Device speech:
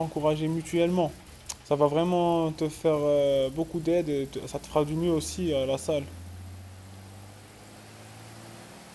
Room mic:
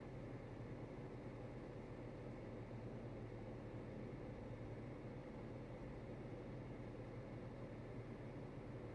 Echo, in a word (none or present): none